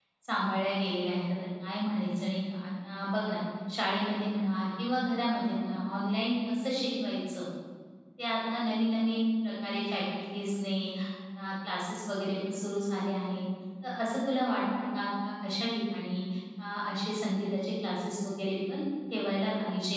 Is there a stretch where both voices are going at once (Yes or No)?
No